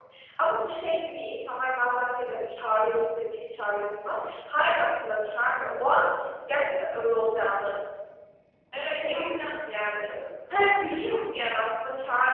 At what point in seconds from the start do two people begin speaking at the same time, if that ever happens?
8.7 s

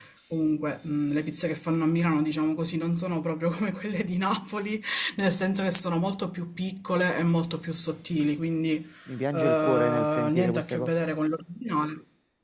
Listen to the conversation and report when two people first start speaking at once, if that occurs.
9.3 s

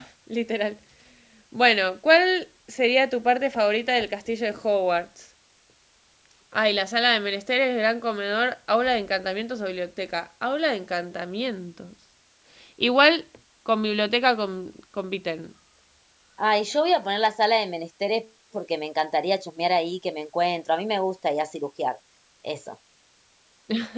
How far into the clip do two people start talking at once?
none

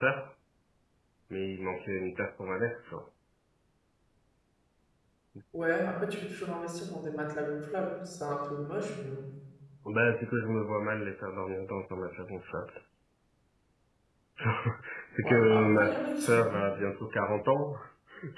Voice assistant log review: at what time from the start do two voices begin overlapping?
15.2 s

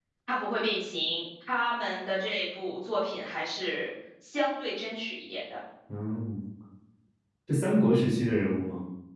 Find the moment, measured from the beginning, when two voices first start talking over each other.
none

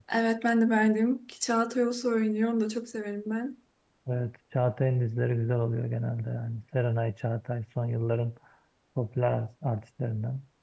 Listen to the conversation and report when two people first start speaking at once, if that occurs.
none

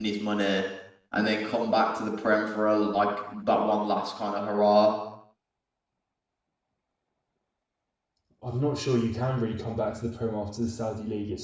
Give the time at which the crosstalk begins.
none

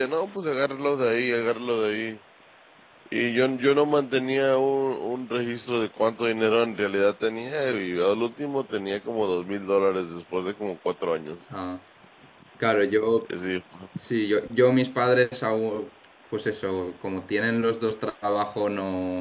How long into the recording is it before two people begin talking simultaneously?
none

